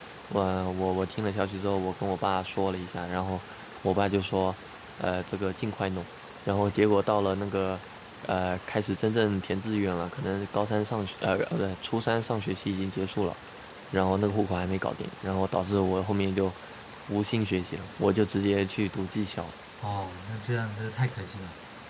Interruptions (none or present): none